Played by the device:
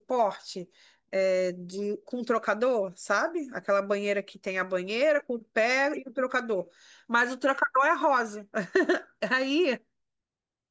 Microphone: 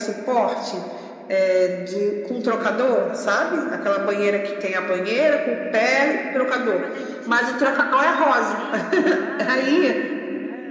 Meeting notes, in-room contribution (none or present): present